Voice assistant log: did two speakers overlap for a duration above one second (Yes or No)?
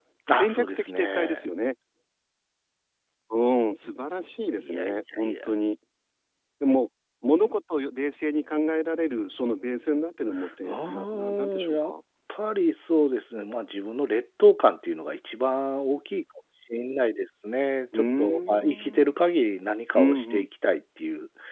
Yes